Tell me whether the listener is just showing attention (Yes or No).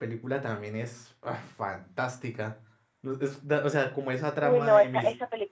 No